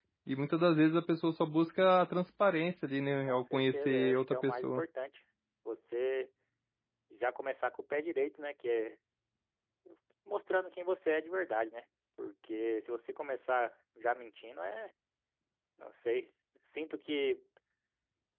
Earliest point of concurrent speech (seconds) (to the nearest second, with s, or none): 3 s